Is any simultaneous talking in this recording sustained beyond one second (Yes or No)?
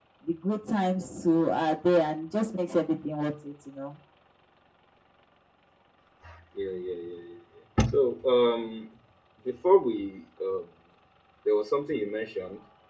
No